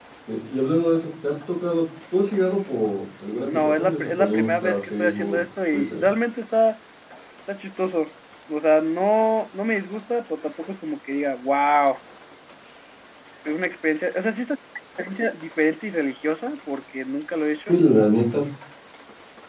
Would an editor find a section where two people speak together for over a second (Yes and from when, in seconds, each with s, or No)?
Yes, from 3.5 s